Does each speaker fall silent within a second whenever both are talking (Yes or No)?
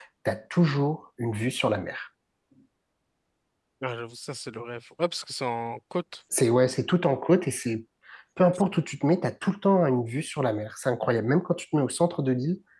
Yes